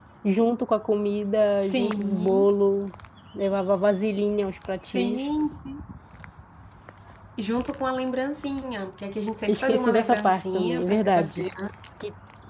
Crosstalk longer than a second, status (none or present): present